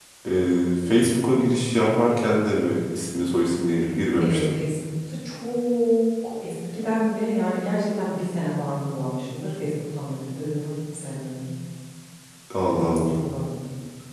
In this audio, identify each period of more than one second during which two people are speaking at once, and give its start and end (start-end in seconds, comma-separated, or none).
none